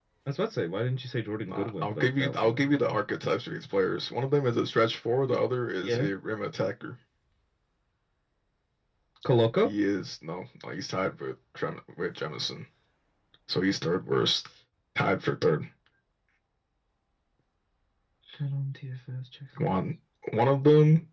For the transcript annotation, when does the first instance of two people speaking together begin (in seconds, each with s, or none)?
1.5 s